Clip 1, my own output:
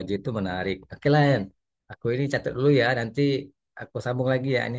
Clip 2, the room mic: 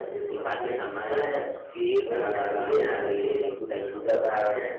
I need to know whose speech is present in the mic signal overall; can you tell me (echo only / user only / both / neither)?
both